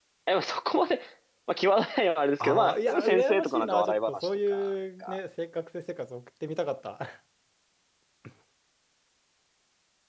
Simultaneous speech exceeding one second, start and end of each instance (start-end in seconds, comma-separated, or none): 2.4-4.7